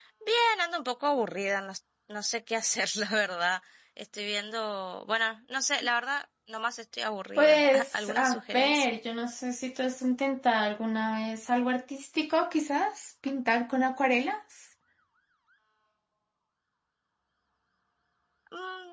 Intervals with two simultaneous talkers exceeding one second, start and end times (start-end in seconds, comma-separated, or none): 7.4-8.9